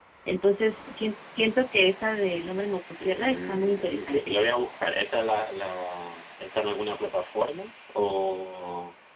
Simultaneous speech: Yes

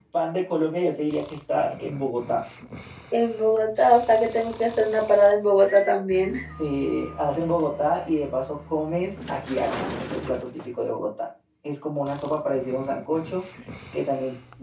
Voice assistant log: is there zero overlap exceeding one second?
Yes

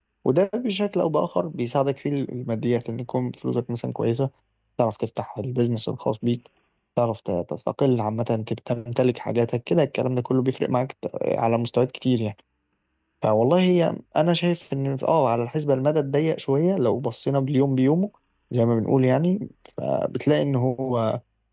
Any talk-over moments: No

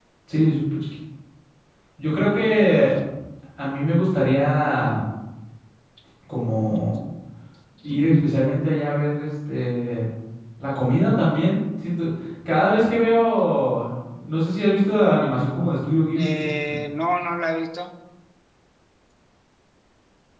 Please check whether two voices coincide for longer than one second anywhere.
No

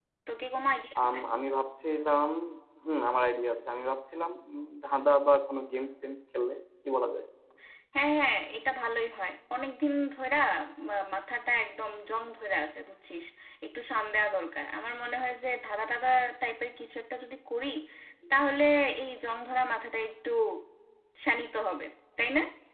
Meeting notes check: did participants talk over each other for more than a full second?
No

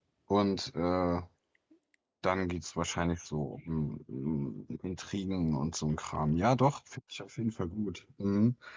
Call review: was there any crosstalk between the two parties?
No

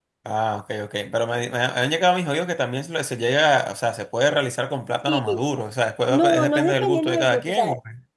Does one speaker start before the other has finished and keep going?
Yes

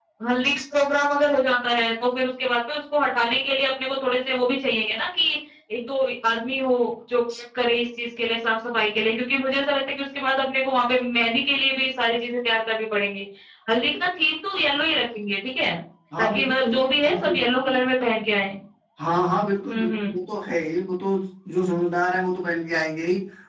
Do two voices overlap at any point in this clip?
Yes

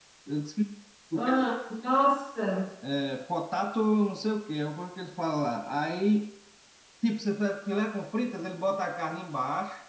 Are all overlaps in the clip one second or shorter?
Yes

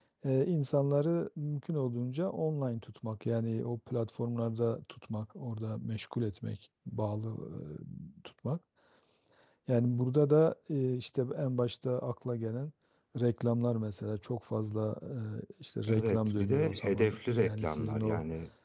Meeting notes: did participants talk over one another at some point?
Yes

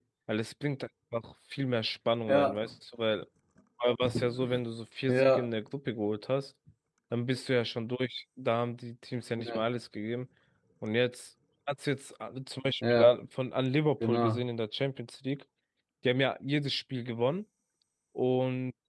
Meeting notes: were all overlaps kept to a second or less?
Yes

